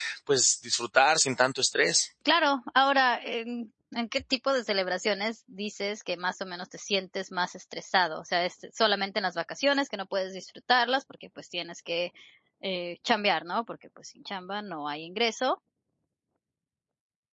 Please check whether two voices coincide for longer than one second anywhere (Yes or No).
No